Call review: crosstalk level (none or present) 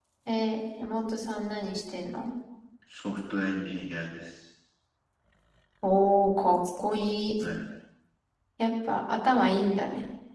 none